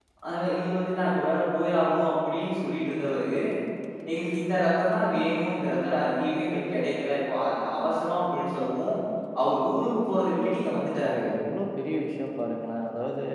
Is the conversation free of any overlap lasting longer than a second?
Yes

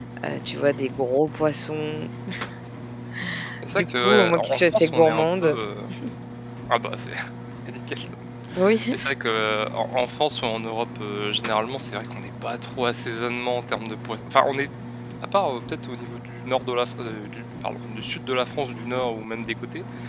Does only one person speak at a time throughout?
No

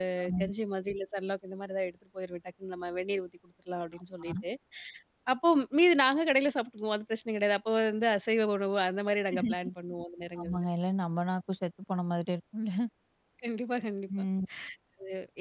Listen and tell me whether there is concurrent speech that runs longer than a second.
No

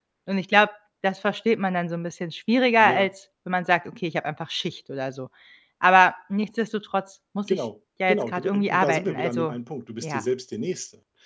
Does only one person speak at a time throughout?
No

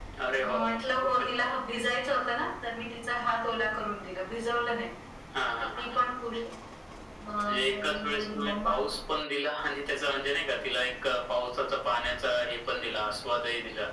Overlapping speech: Yes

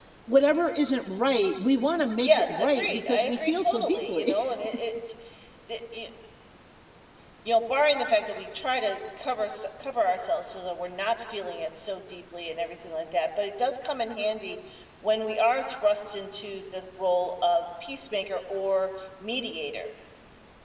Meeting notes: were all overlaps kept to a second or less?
No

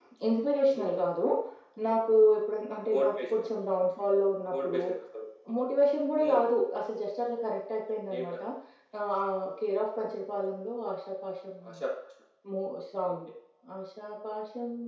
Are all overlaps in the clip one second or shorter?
Yes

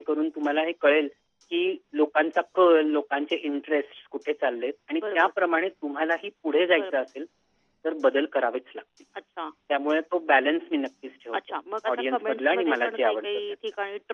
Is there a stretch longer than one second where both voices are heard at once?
Yes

